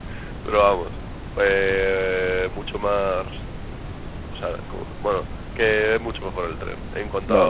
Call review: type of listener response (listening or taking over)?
taking over